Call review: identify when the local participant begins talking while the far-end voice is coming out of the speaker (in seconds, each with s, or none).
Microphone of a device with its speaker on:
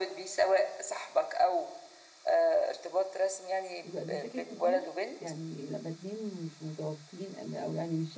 3.8 s